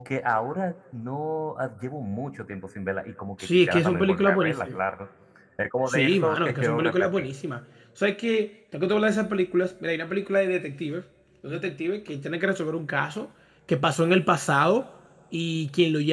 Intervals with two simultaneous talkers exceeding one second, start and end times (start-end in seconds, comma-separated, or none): 3.4-4.8, 5.9-7.3